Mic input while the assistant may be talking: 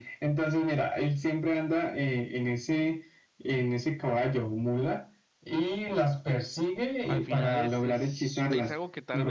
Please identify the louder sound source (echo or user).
echo